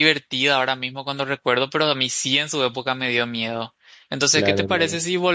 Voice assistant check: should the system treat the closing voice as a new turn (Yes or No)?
No